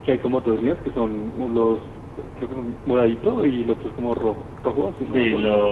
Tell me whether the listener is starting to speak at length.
Yes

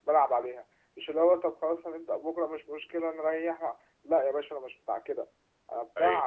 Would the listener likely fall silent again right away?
Yes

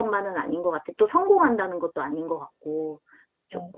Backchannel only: No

